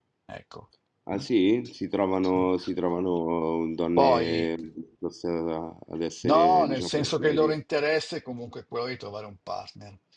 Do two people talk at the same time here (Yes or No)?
Yes